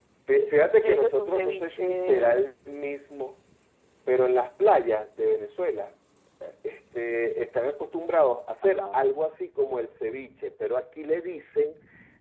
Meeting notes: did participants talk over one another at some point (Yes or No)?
Yes